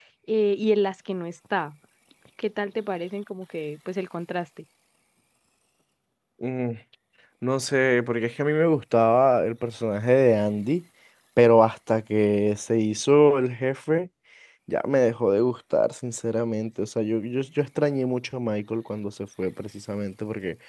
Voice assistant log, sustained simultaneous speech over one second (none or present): none